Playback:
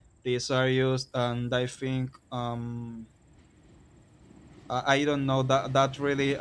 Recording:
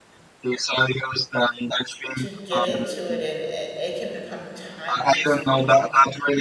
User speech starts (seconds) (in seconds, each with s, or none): 2.1 s